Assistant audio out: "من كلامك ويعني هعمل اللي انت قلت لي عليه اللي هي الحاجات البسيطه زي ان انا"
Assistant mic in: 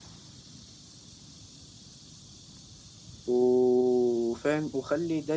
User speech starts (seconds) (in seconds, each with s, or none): 3.3 s